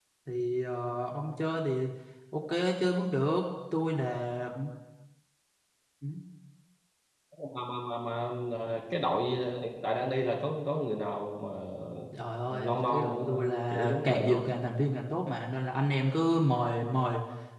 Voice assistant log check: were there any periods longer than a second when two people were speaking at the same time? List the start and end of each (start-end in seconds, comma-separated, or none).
12.5-14.4